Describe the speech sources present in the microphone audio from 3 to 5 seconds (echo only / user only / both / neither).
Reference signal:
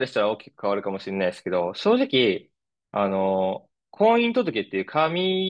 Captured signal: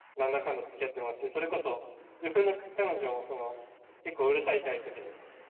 user only